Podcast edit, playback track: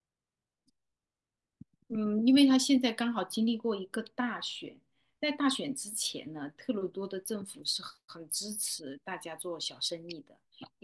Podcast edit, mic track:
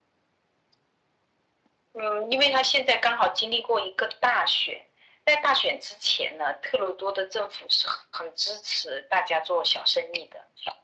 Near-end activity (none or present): none